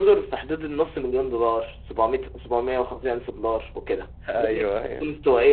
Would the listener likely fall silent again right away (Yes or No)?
Yes